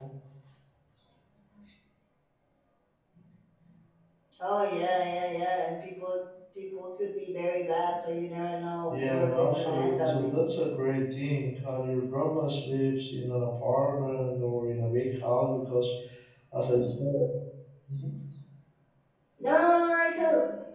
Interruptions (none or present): present